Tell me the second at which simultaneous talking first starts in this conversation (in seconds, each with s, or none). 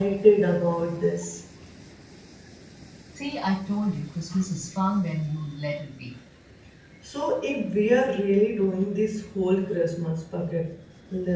none